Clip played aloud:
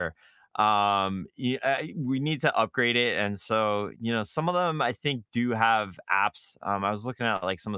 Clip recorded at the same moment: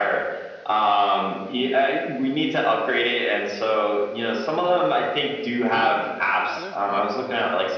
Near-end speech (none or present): present